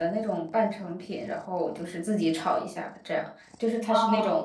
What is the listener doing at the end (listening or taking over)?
listening